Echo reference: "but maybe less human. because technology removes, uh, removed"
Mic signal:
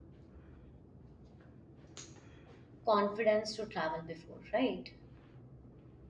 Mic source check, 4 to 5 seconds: user only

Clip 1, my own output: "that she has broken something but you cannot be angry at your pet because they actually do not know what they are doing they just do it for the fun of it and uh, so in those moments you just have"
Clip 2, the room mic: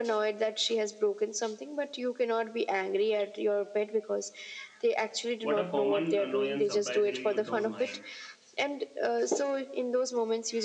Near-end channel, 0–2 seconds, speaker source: echo only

